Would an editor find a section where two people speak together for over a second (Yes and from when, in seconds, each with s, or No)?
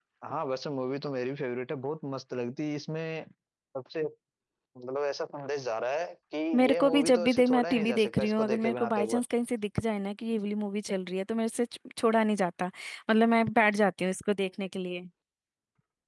Yes, from 6.5 s